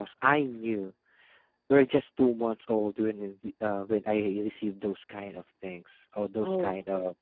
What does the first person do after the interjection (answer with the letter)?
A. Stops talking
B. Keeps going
B